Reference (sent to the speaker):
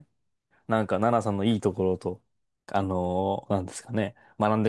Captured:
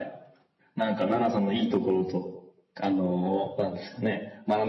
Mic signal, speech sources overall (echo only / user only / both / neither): echo only